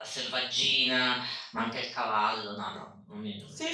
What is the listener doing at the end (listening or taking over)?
taking over